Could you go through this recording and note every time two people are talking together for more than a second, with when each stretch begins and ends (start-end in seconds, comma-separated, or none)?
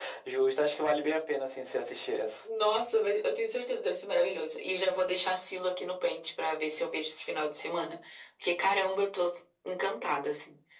none